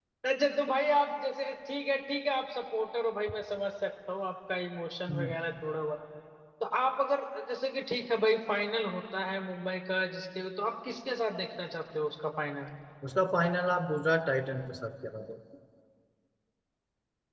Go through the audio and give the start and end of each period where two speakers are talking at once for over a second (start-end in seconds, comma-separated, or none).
none